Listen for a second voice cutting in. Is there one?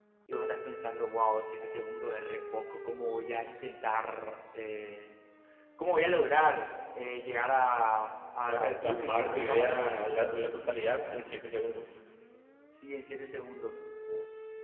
Yes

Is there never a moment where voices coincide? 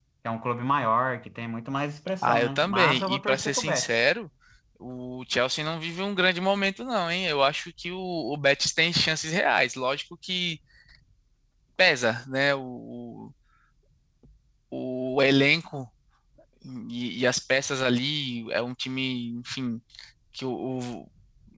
No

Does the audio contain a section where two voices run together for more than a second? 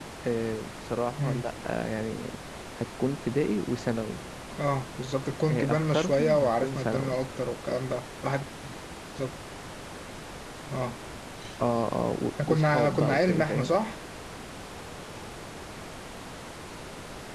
Yes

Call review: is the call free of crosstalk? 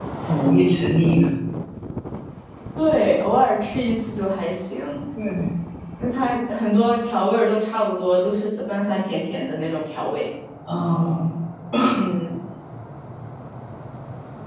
Yes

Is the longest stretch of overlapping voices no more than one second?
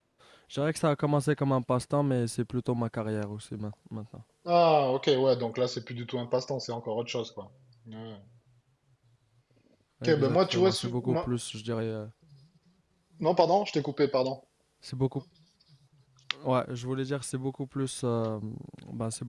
No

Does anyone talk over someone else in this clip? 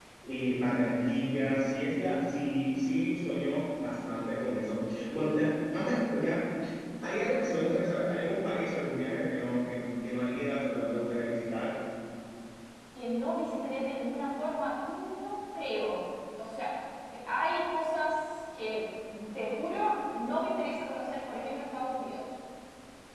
No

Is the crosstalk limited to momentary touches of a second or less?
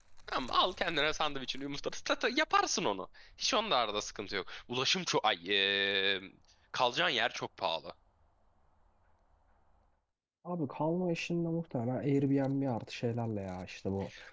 Yes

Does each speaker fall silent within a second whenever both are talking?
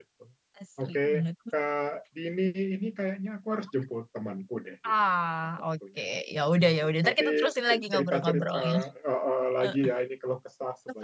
No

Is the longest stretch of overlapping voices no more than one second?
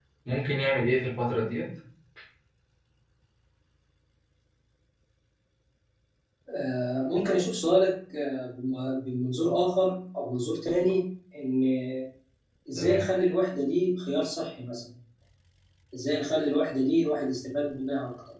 Yes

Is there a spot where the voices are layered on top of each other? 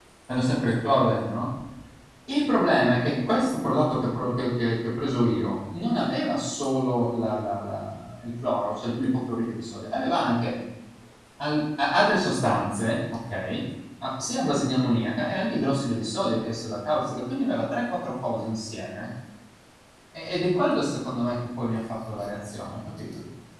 No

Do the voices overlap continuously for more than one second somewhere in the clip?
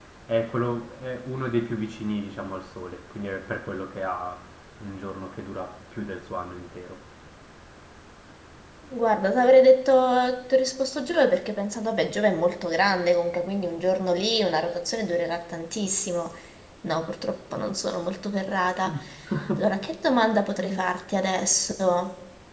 No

